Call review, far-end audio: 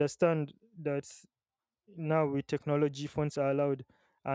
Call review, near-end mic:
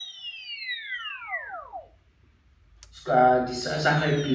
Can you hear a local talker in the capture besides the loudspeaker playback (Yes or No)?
Yes